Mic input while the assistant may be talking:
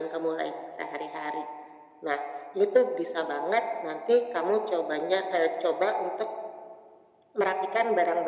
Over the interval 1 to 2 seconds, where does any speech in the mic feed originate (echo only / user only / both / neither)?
echo only